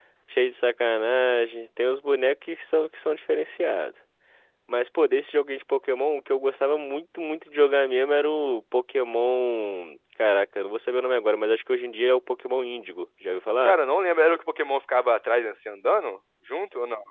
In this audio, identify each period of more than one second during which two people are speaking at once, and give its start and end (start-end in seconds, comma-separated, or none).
none